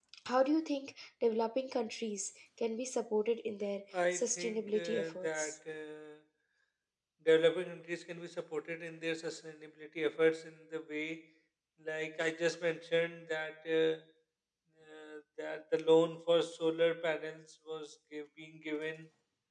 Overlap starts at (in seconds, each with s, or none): 3.9 s